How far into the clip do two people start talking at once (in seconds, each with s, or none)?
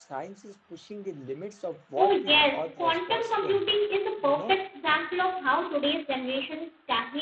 2.0 s